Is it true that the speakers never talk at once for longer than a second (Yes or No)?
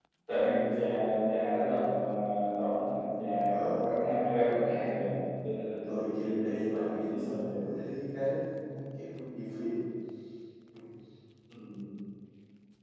No